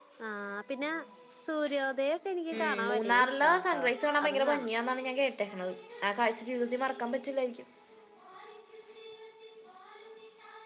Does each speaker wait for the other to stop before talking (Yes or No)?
No